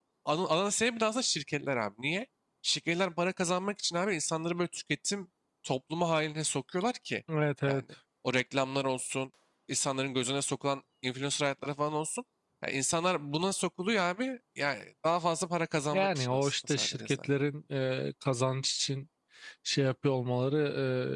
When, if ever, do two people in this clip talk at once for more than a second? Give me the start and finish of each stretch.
15.9-17.3

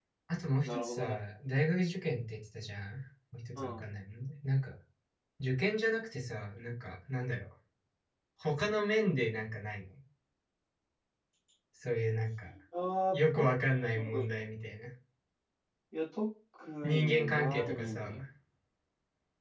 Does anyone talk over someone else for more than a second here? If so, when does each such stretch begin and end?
16.9-18.2

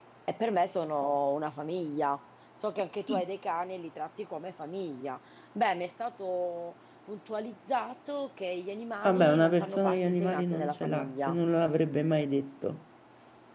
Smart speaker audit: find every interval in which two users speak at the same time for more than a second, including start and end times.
9.0-11.4

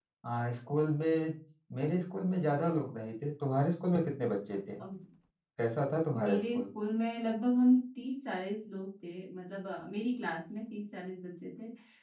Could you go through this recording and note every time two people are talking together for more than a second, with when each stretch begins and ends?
none

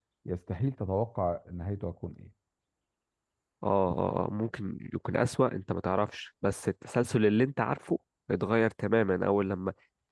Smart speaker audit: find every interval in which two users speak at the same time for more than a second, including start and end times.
none

